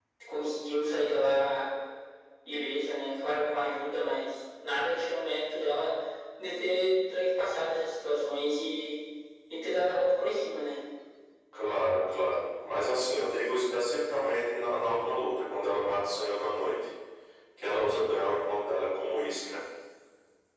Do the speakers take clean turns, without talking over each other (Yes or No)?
Yes